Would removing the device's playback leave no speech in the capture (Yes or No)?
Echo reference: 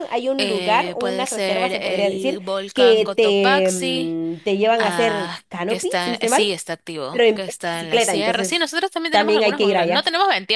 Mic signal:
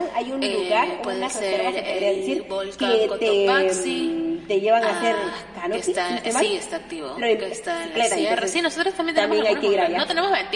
Yes